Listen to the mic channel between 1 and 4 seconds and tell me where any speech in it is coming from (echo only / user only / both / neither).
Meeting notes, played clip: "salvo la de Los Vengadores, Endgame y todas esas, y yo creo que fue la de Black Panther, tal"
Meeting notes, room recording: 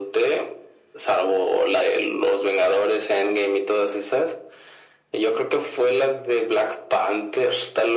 echo only